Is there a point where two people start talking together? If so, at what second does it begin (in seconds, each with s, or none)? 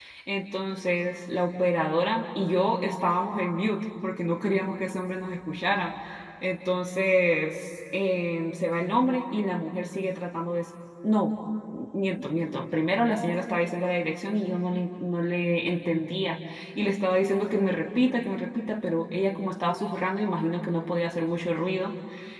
none